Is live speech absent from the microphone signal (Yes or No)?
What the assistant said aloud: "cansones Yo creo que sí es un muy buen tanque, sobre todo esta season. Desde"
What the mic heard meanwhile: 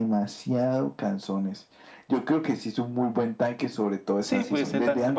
No